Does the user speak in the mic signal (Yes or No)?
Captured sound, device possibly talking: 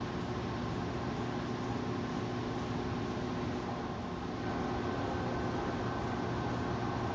No